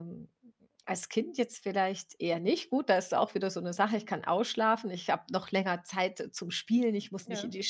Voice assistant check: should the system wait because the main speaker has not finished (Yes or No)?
Yes